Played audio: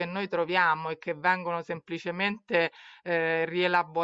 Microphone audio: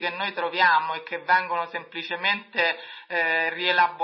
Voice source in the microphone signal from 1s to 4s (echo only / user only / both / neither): echo only